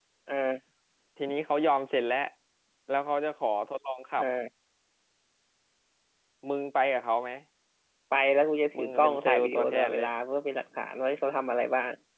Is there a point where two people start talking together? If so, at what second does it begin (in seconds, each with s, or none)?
8.8 s